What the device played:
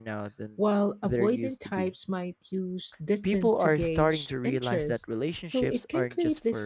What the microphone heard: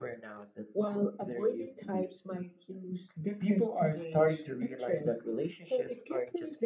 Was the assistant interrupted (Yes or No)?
No